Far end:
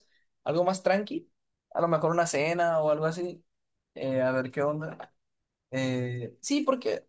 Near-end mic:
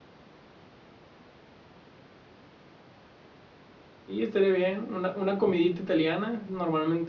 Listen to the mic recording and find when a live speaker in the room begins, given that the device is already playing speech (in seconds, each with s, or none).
4.1 s